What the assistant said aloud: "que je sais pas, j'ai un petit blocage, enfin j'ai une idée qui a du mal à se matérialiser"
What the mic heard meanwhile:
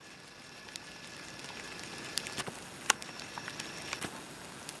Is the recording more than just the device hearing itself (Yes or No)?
No